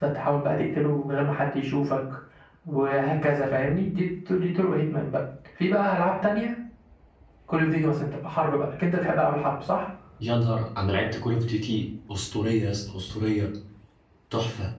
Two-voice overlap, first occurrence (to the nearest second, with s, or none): none